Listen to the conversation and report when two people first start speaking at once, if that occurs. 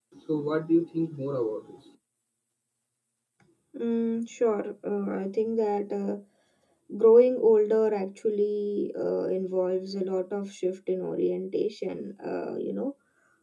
none

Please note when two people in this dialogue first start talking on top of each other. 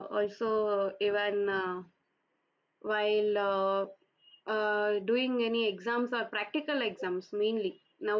none

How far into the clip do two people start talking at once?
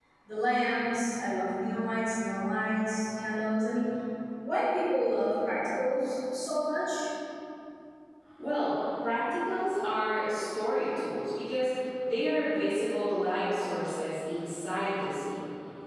none

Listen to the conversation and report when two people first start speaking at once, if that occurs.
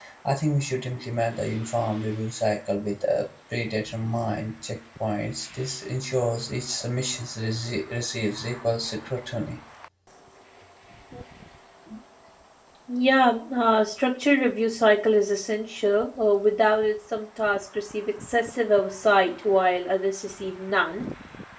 none

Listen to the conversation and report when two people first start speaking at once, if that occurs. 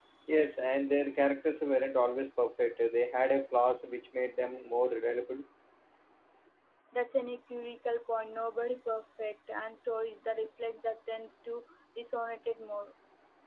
none

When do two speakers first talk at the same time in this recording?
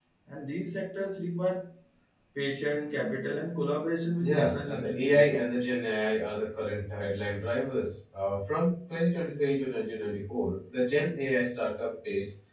4 s

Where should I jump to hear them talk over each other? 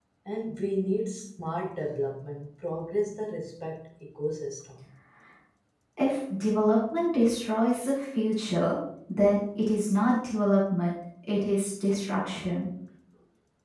none

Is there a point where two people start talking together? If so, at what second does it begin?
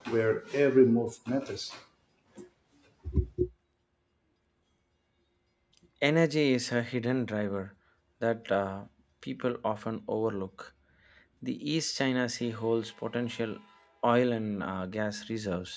none

